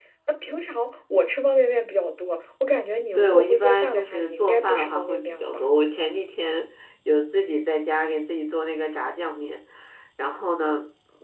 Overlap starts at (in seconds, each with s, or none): 3.1 s